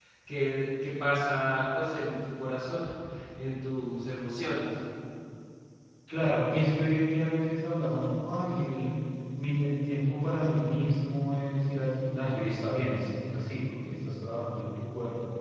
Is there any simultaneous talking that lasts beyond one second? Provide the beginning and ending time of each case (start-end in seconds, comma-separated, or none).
none